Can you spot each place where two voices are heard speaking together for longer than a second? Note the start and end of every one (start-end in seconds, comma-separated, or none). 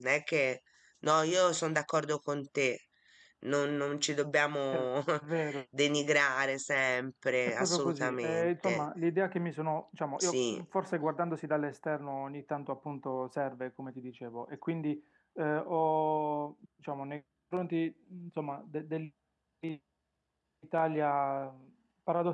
7.5-8.8